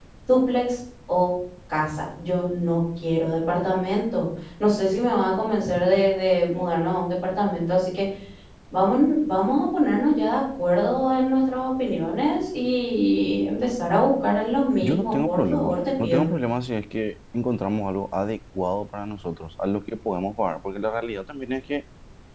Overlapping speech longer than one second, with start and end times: 14.8-16.3

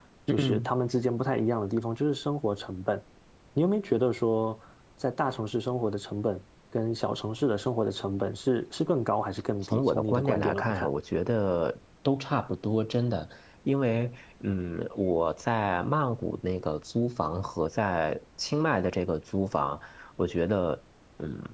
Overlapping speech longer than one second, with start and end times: 9.6-10.9

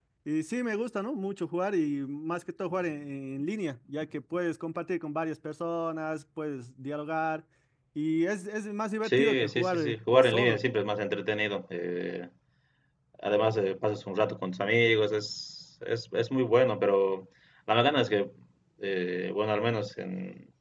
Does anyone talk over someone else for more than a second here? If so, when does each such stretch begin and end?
9.0-10.6

